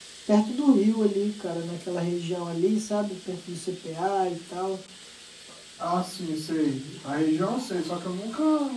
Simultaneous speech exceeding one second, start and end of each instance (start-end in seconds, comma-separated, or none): none